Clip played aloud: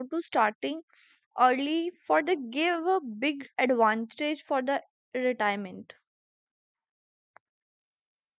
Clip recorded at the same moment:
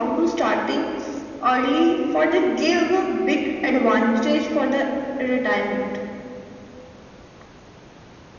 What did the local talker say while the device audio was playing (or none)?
none